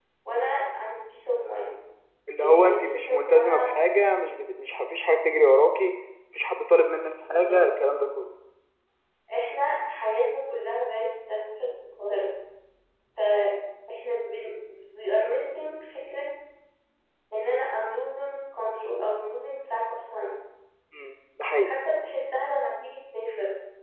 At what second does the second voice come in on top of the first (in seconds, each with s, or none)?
2.4 s